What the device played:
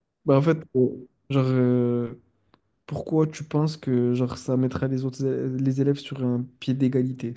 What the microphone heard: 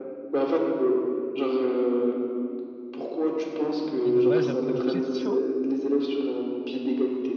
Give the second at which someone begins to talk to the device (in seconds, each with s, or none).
4.0 s